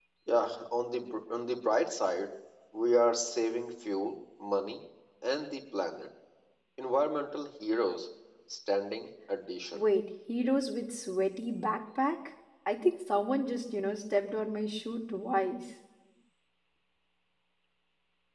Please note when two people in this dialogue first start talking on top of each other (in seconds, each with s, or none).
none